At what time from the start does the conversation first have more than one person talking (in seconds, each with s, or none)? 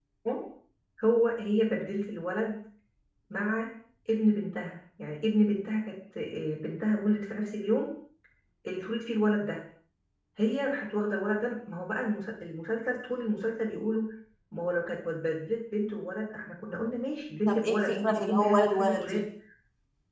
17.5 s